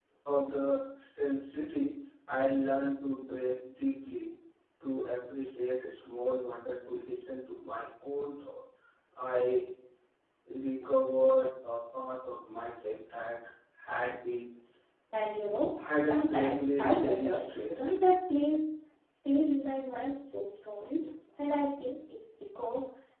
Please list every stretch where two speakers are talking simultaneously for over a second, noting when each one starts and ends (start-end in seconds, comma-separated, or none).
16.0-17.9